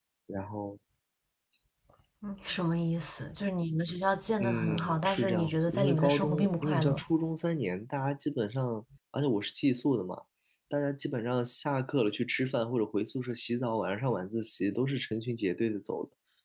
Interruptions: present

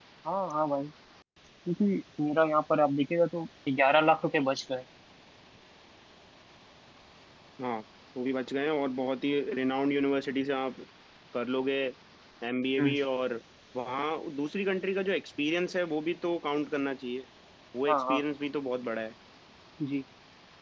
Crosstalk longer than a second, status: none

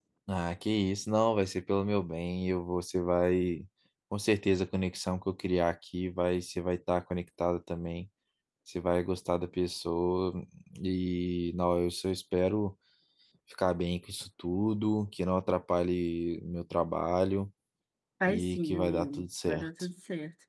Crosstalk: present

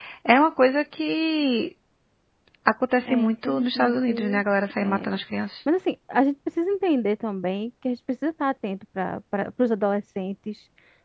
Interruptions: present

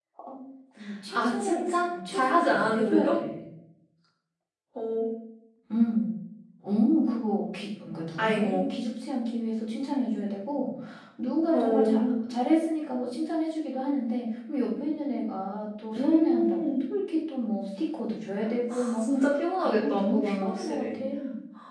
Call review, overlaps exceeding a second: present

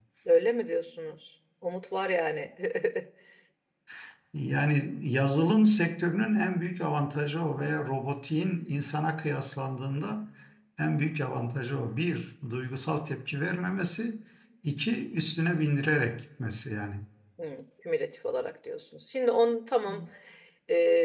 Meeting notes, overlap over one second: none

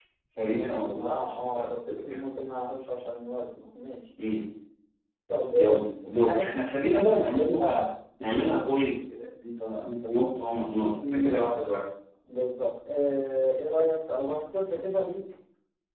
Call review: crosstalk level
present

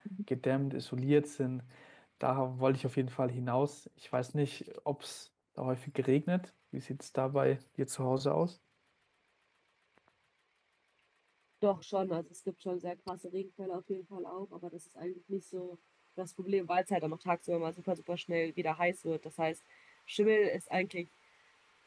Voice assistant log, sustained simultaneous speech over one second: none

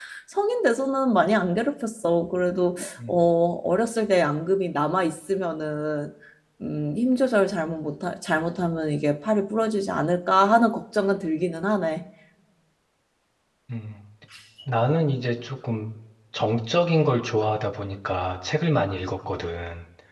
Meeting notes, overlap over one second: none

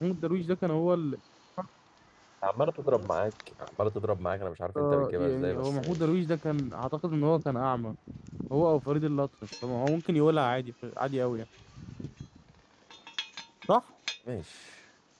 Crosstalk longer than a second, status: present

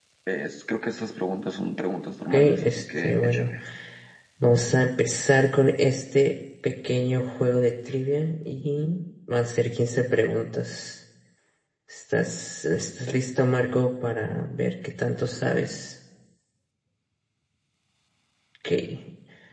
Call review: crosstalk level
present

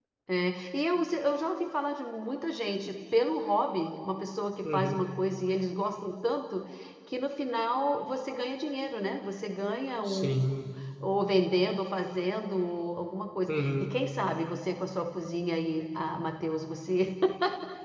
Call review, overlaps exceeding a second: none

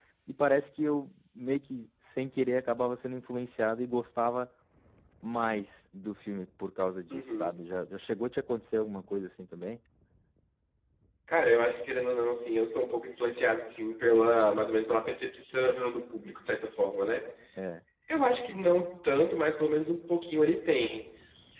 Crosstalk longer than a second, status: none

